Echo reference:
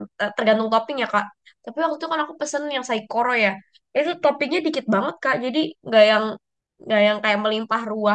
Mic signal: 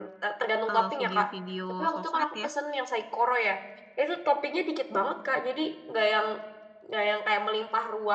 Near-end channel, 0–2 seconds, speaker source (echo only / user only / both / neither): both